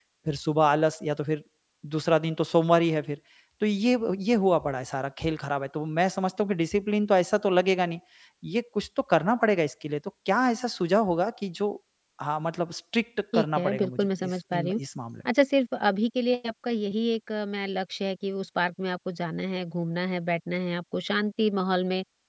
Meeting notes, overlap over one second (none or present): present